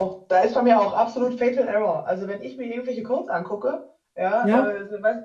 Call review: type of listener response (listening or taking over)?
listening